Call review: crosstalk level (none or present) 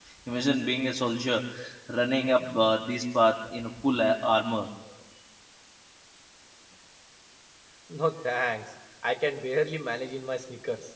none